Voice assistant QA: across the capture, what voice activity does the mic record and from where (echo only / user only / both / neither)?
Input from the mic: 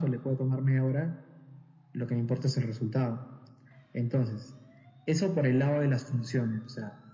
echo only